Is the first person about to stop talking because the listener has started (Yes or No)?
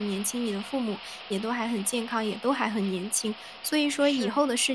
No